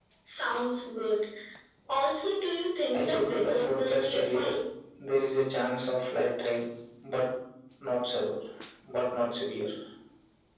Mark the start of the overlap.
3 s

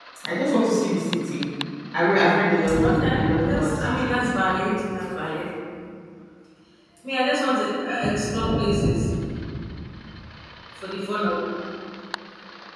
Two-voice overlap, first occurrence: 3 s

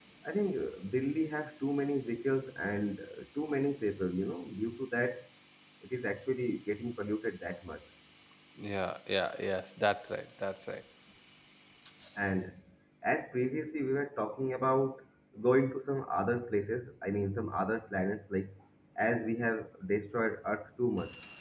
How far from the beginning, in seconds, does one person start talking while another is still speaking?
none

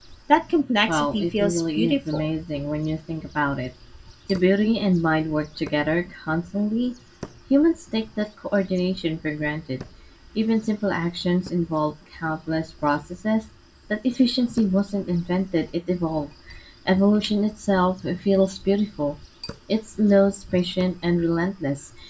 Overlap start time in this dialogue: 1 s

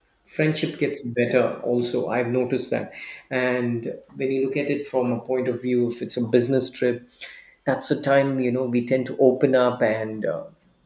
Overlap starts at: none

